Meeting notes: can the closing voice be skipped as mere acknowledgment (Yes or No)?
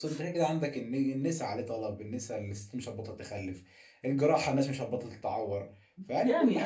No